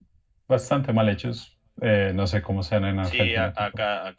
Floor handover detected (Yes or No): Yes